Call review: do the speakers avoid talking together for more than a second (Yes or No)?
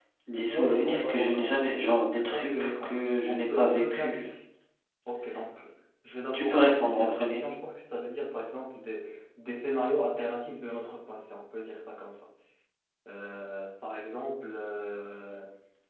No